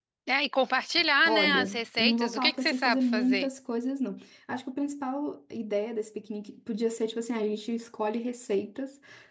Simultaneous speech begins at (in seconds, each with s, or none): 1.3 s